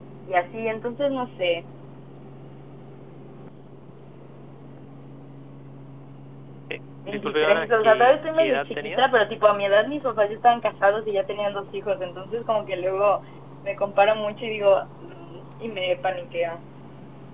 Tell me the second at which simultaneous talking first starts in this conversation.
7.1 s

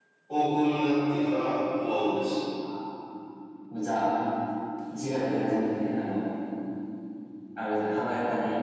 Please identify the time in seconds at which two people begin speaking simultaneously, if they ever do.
none

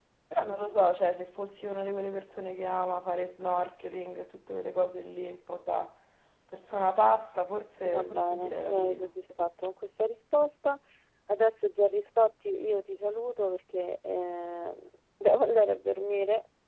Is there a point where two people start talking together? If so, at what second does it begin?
7.8 s

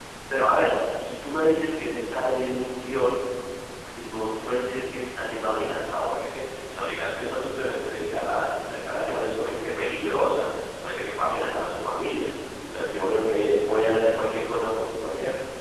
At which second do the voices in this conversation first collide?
none

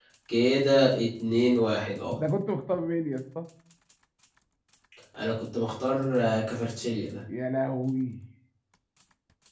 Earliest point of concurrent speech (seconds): none

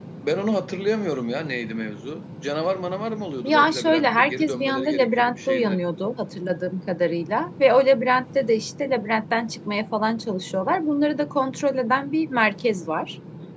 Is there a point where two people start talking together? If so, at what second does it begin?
3.4 s

